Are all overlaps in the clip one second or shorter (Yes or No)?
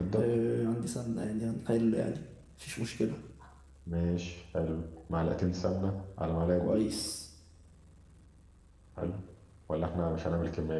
Yes